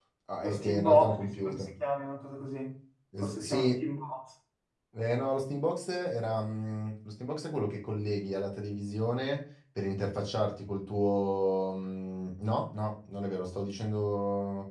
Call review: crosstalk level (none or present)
present